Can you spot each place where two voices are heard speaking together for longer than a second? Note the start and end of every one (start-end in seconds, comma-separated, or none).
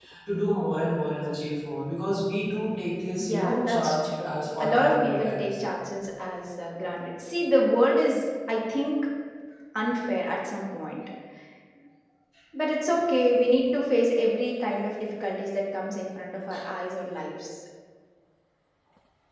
3.2-5.7